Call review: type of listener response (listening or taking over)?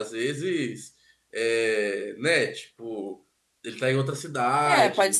taking over